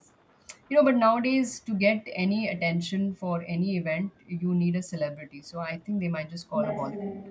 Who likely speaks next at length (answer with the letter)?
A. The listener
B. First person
A